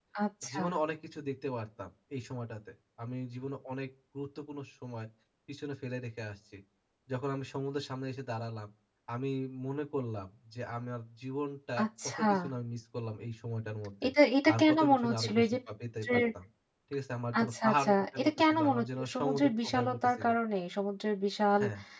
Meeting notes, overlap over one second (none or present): present